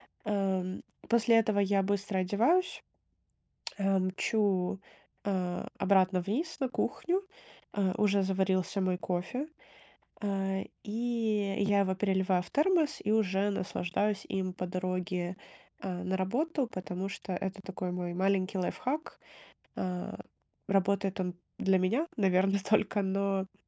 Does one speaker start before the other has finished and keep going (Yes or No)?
No